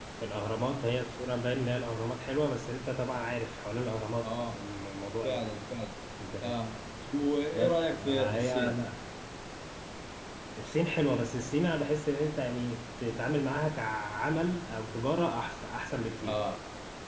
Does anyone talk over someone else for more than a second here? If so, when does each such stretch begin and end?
7.5-8.8

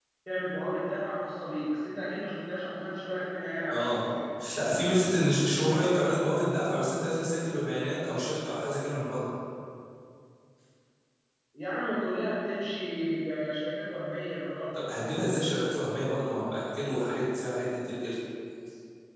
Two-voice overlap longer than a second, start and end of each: none

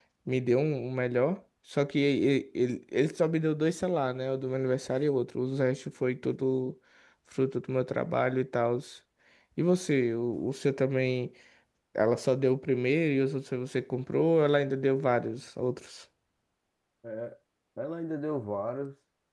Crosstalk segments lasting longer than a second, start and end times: none

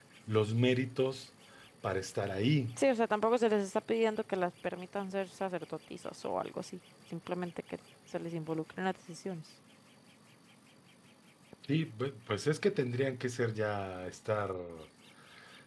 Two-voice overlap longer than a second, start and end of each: none

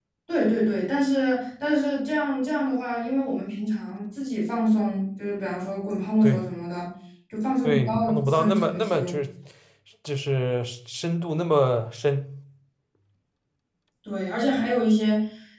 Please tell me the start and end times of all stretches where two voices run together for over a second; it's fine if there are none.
7.6-9.1

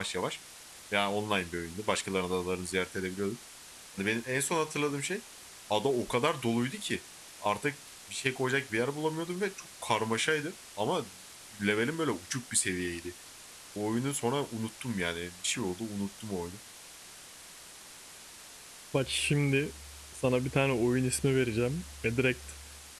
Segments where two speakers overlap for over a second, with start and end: none

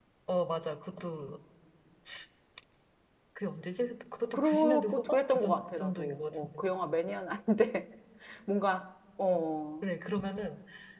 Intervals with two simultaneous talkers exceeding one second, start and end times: 4.3-6.6

